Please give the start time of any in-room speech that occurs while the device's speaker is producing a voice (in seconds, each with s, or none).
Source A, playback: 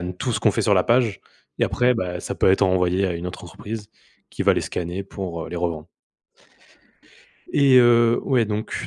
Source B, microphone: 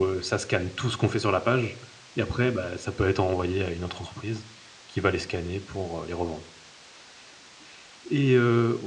none